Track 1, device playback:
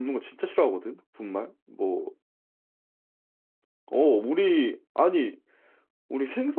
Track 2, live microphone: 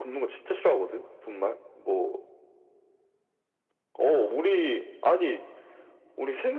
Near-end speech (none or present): none